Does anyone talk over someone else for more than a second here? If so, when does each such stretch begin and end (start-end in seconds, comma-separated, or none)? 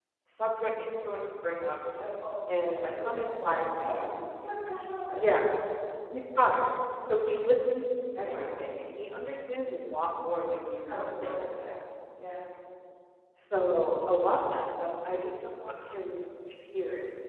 2.7-4.0